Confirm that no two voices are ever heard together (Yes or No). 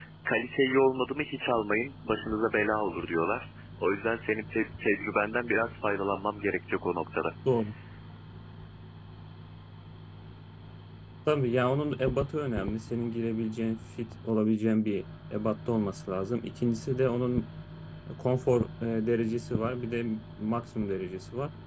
Yes